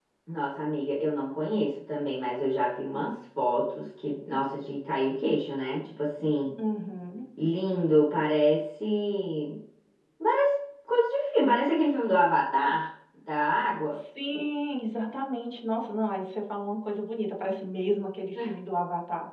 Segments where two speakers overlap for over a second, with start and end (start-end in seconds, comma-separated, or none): none